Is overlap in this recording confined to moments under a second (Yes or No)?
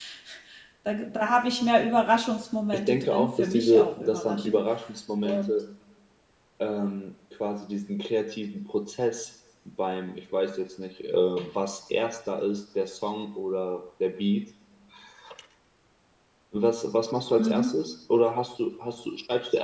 No